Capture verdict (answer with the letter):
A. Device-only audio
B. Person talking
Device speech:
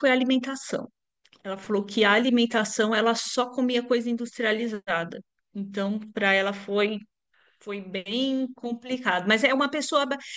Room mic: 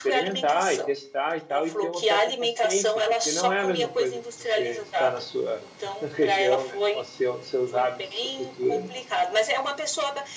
B